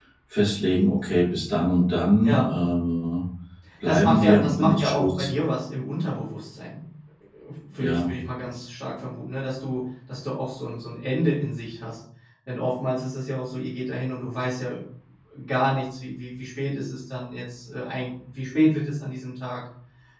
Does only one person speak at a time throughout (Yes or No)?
No